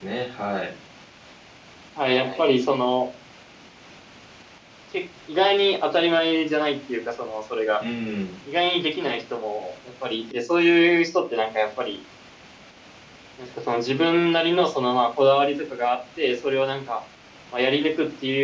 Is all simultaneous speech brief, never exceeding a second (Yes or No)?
Yes